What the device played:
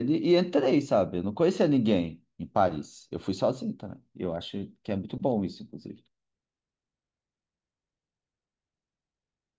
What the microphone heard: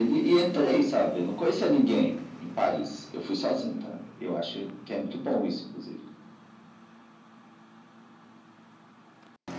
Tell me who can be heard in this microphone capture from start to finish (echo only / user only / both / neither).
echo only